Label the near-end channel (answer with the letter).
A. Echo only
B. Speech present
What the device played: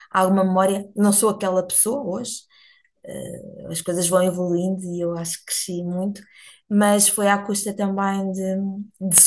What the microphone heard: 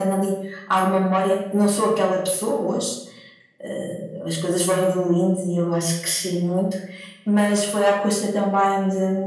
A